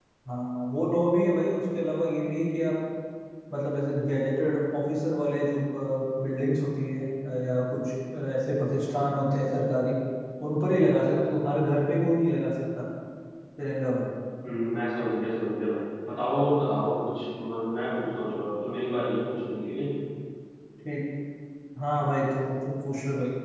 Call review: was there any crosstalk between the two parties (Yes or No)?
No